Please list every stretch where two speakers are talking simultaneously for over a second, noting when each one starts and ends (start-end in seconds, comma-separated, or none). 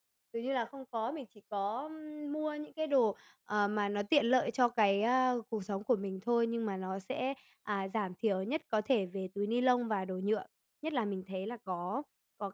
none